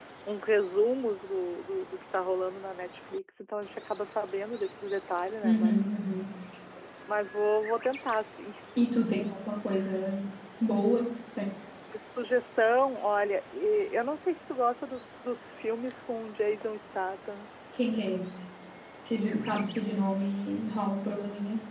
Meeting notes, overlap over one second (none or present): none